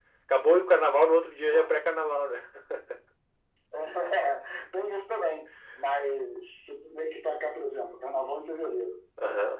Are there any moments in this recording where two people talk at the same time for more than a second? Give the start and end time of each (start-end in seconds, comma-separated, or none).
none